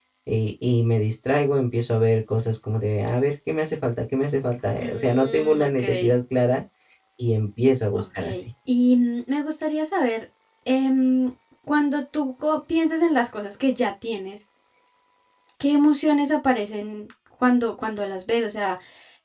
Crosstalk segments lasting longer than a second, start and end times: 4.8-6.2

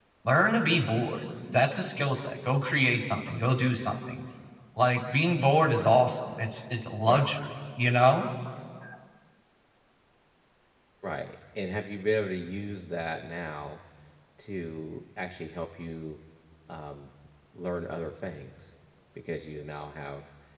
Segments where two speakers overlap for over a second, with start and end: none

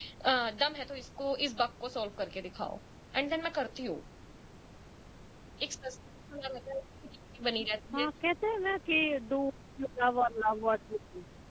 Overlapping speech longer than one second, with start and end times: none

